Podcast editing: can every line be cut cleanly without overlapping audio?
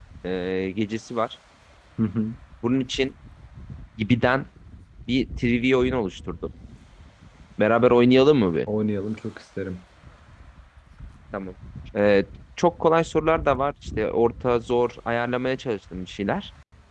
Yes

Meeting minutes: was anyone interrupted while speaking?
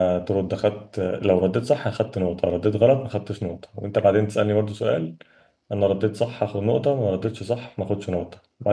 No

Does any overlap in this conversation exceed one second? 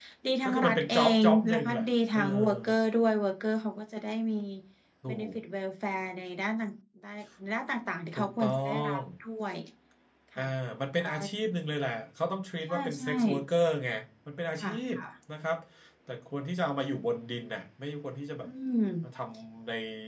Yes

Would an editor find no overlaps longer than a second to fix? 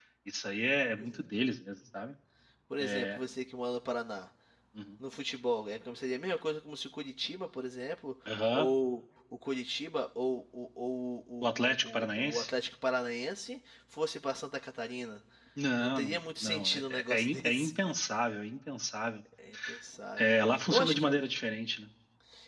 No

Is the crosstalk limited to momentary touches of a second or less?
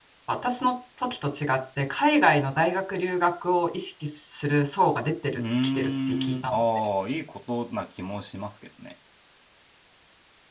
No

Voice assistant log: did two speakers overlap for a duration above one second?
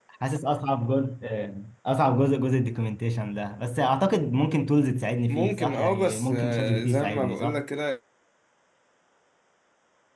Yes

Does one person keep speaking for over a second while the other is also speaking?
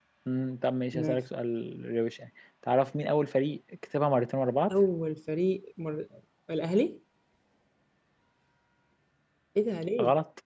No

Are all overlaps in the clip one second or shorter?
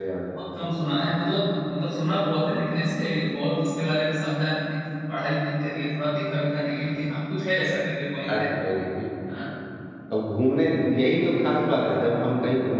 Yes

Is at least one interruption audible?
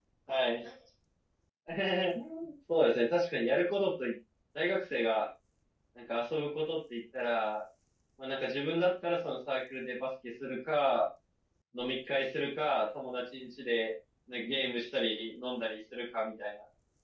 No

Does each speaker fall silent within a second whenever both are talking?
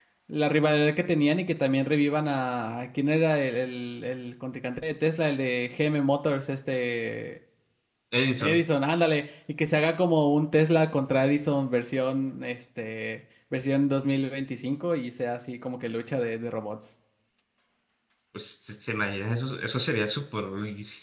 Yes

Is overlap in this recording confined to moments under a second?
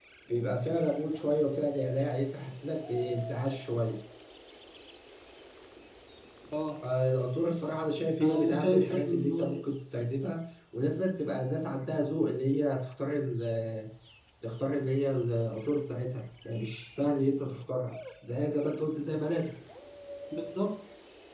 No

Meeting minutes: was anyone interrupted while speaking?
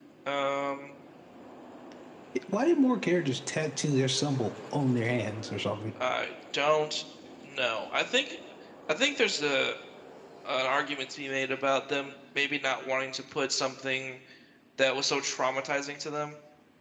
No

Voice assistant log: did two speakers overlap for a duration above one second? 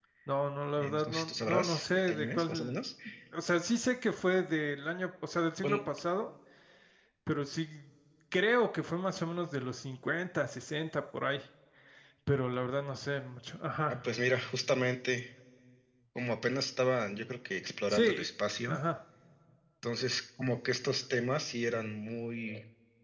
Yes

